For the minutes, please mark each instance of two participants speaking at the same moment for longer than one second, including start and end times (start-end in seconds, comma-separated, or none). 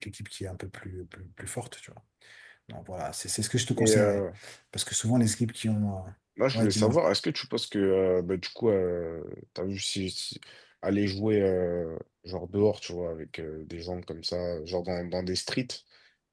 none